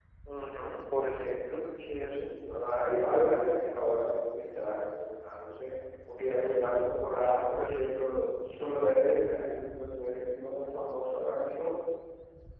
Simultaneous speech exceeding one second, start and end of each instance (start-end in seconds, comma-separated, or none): none